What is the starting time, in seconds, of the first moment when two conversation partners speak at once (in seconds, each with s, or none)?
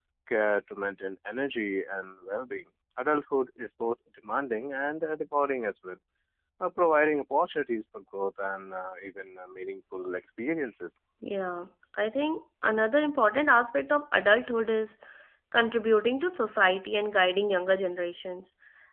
none